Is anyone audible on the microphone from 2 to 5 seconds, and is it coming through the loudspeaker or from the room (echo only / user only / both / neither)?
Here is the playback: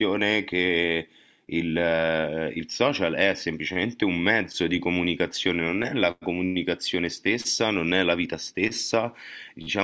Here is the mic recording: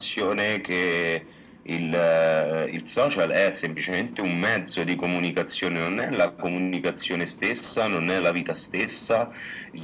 echo only